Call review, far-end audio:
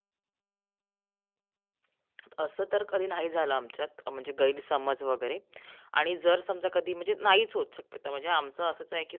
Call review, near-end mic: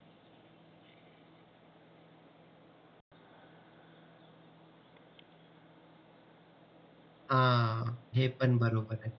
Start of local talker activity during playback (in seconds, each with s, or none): 7.3 s